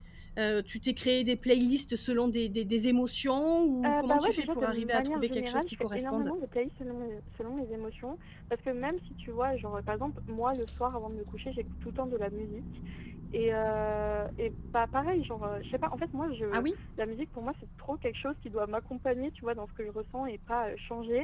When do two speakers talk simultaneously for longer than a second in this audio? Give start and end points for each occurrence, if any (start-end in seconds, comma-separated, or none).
3.8-6.3